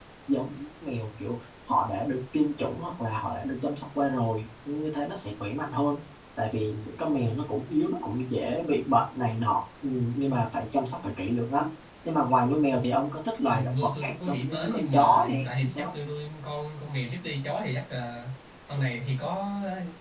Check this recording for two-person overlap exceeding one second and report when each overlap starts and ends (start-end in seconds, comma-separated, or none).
13.5-15.9